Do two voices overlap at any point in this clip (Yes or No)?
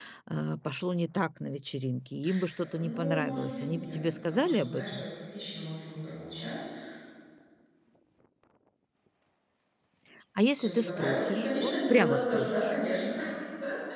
Yes